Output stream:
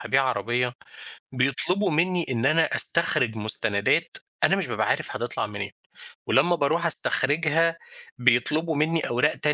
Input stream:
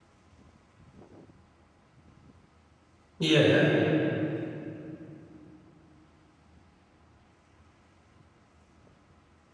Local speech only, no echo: ياه!

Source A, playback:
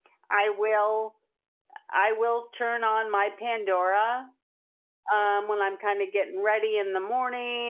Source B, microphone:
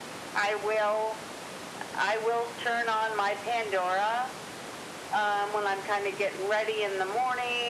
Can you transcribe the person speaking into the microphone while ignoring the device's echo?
none

